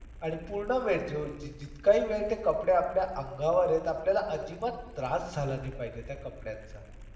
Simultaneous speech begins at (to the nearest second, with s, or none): none